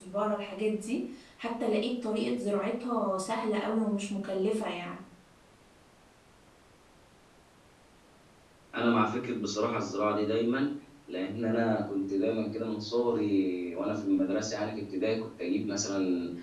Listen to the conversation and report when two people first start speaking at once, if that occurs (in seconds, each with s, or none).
none